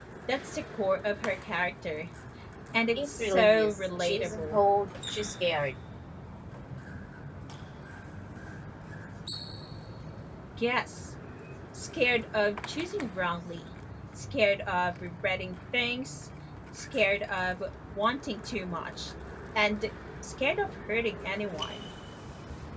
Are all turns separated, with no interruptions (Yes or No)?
No